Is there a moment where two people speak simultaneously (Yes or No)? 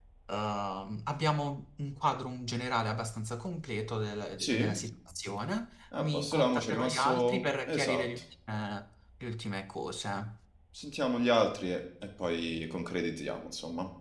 Yes